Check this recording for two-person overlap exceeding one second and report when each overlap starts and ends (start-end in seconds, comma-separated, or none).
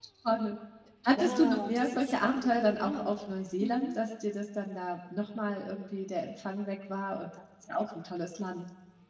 1.2-3.1